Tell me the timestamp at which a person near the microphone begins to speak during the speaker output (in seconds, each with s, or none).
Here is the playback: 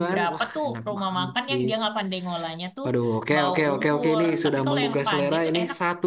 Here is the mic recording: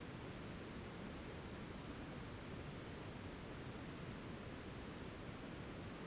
none